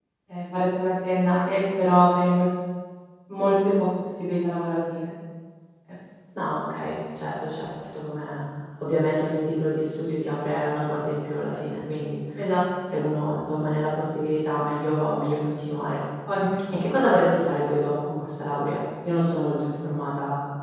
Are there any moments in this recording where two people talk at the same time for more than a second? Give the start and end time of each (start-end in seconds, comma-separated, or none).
none